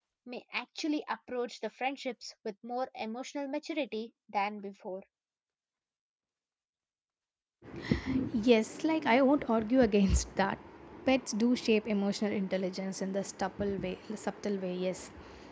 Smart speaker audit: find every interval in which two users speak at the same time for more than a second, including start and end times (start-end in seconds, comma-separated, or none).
none